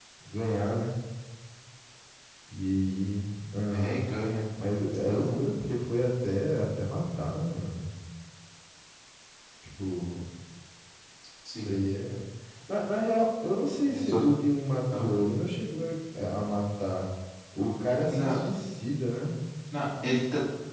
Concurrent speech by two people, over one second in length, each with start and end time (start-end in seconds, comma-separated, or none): none